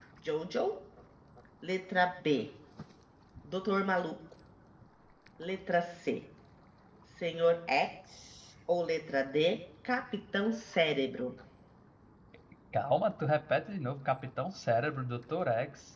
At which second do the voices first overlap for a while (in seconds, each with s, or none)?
none